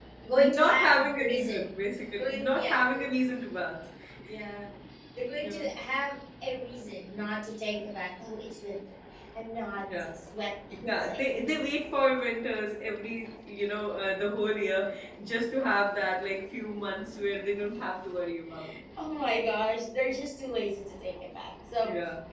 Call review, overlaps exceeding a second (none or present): present